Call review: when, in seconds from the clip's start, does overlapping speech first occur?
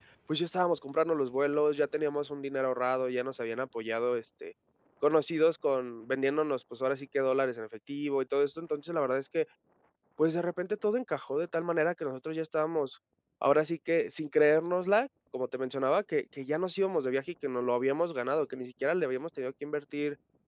none

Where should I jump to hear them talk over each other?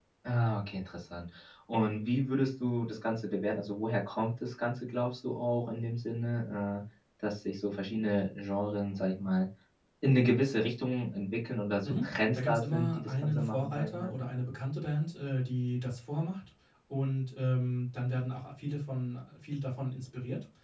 11.8 s

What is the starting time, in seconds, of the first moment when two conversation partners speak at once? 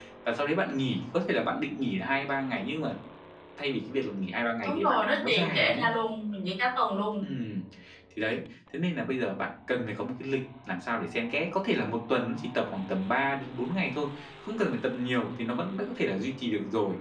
4.7 s

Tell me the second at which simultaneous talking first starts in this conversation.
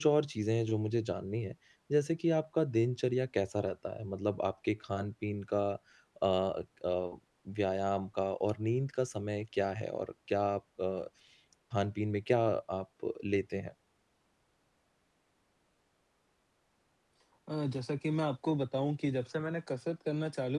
none

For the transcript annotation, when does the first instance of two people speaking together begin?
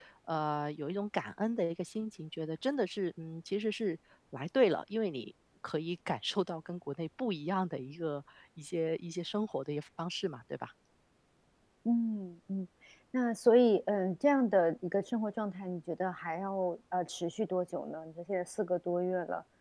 none

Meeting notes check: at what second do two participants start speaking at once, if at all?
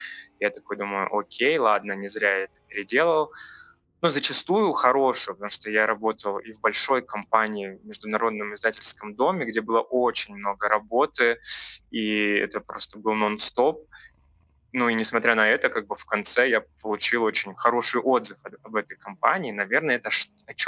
none

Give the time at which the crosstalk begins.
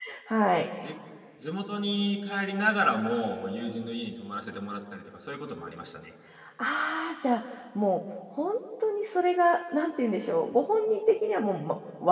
none

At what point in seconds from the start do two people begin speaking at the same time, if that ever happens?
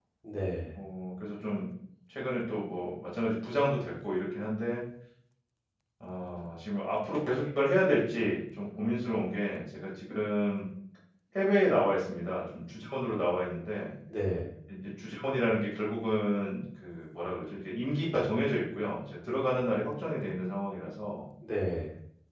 none

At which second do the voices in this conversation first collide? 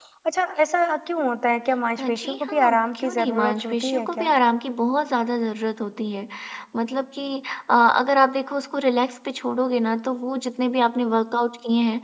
2.0 s

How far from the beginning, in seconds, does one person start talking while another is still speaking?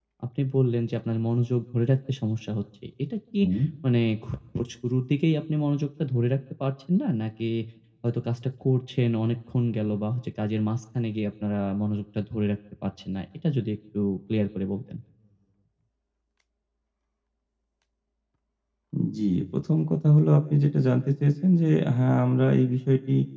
none

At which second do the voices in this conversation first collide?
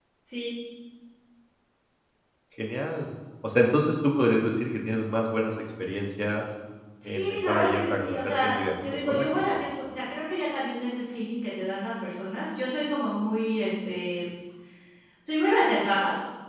7.0 s

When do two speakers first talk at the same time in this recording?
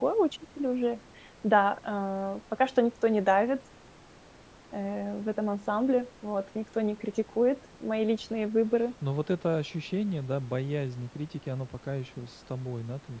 none

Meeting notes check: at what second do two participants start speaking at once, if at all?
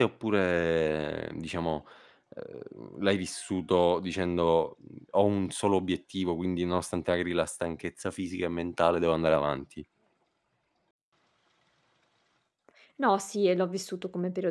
none

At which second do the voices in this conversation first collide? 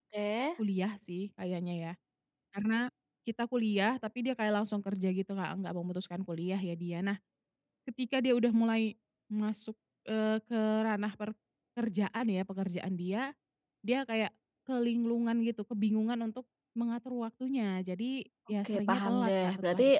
18.6 s

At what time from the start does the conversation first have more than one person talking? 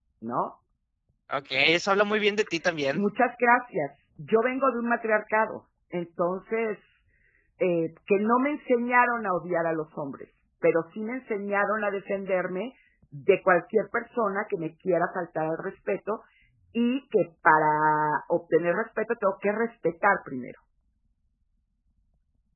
none

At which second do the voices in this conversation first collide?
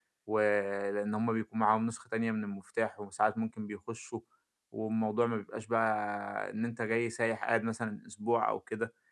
none

